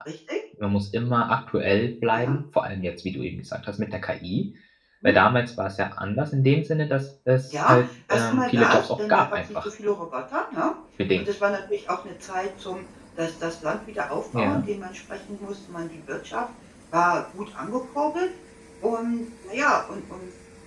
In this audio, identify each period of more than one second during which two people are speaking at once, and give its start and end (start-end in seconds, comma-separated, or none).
7.5-9.7